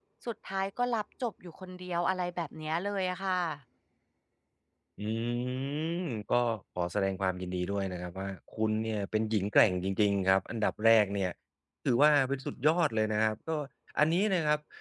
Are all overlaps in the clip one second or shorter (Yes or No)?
Yes